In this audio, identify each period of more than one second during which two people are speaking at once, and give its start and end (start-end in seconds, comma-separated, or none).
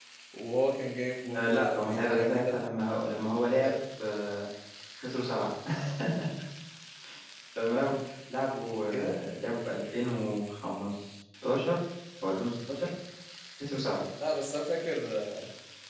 1.3-2.6